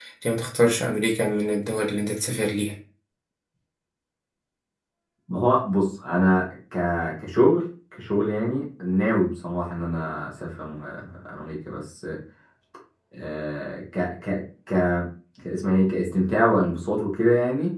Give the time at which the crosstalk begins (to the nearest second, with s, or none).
none